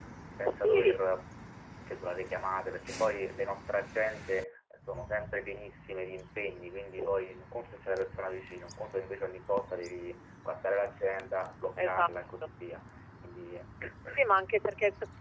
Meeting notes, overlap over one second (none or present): none